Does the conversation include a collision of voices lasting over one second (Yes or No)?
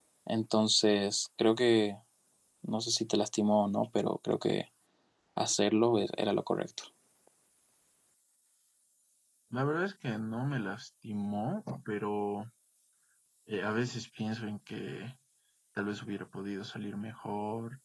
No